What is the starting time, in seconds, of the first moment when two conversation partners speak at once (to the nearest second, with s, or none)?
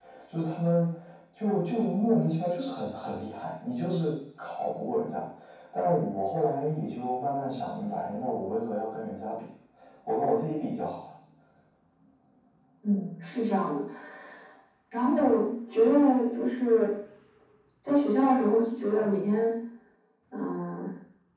none